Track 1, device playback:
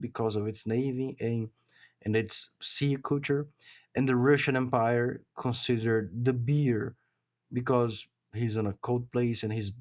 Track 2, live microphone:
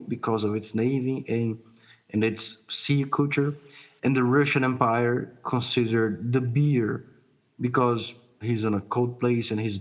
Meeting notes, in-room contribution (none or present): none